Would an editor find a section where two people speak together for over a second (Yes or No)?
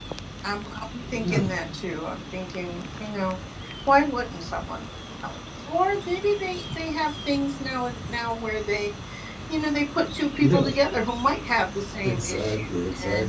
Yes